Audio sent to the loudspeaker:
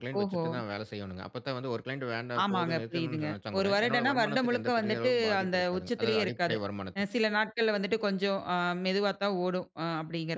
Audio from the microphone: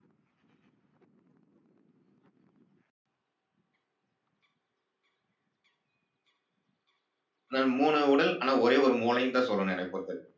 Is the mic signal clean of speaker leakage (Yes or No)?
Yes